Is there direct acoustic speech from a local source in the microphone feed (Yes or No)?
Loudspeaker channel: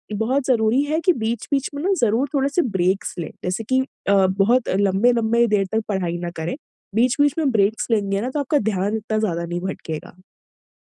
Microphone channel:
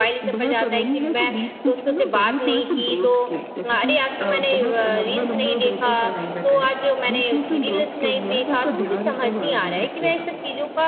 Yes